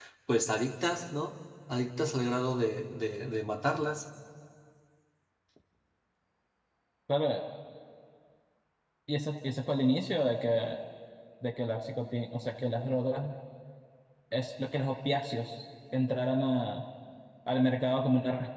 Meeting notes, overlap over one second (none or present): none